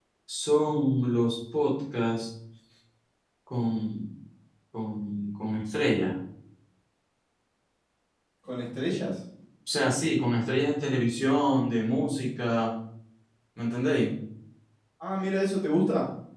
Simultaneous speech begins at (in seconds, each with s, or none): none